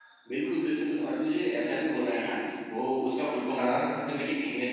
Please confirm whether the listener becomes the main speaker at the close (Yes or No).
No